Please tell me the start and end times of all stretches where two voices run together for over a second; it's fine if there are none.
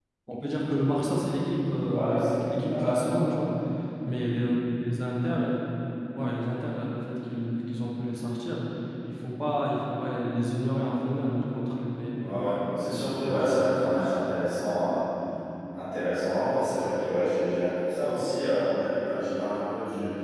1.9-3.4, 12.2-13.6

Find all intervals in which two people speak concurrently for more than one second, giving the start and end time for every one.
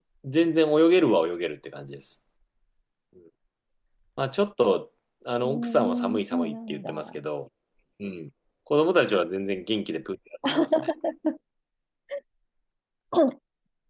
5.4-6.9

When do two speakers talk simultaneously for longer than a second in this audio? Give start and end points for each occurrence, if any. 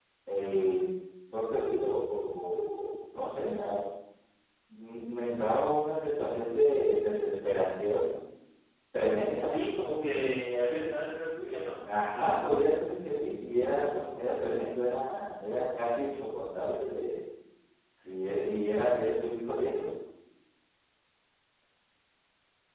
none

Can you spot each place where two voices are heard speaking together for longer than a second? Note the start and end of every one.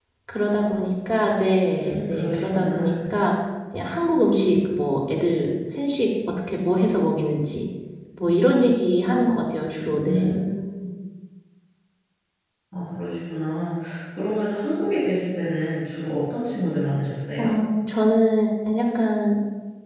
1.7-3.1

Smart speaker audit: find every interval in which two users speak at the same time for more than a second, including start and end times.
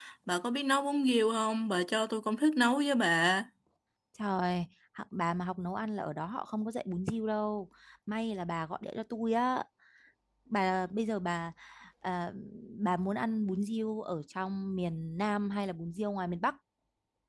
none

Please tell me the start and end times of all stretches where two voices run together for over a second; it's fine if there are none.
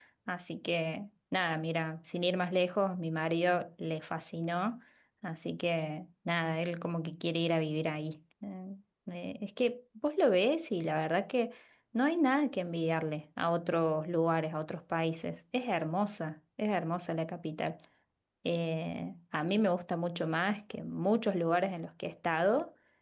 none

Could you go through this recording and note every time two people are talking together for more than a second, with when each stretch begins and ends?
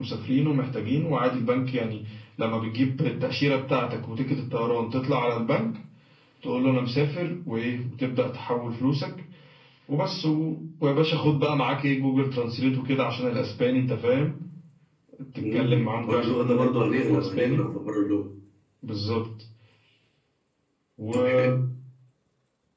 15.4-17.7

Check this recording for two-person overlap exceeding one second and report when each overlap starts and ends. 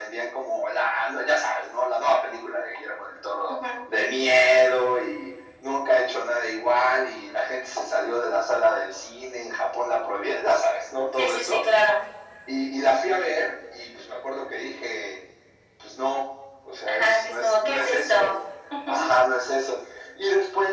16.9-18.3

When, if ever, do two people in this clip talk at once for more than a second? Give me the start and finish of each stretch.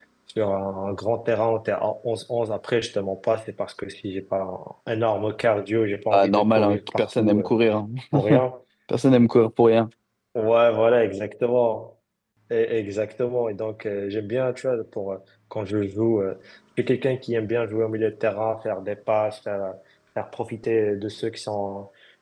6.1-7.5

